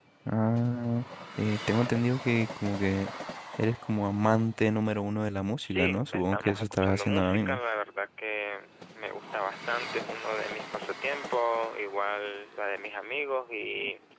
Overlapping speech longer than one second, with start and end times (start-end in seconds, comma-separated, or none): 5.6-7.6